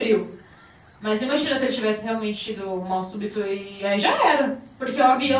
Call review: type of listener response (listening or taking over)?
listening